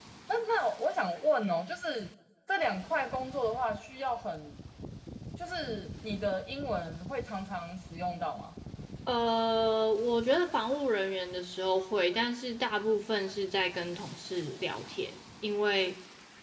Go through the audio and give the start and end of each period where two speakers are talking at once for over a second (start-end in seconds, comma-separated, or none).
none